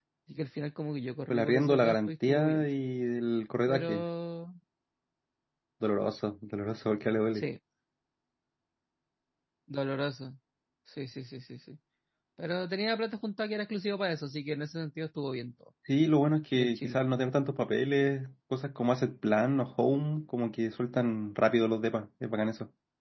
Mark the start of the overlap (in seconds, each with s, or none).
1.3 s